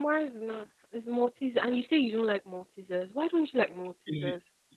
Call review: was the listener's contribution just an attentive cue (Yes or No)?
No